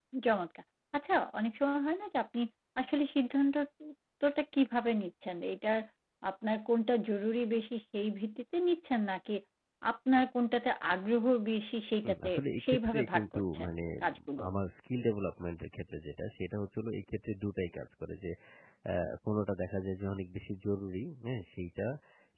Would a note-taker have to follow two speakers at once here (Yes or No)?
Yes